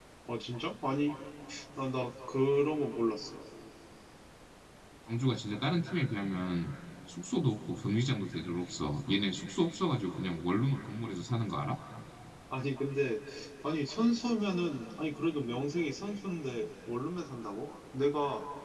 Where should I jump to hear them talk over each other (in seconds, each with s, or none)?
none